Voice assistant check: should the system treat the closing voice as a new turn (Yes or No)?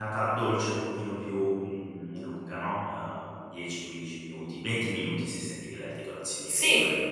Yes